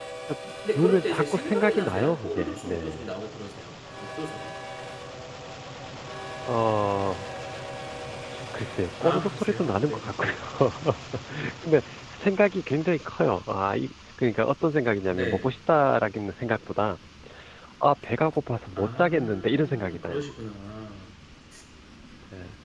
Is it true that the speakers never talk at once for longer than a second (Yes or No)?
No